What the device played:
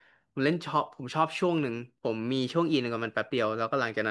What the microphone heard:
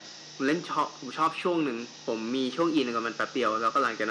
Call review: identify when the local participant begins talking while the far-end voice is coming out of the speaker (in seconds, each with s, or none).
none